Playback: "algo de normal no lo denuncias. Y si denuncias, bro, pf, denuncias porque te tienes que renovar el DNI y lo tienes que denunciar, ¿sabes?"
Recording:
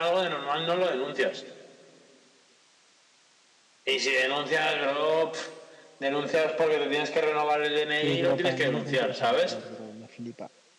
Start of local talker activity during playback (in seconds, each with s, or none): 8.0 s